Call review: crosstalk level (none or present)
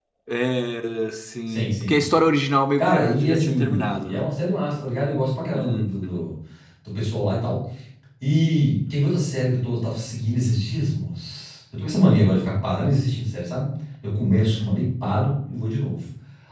present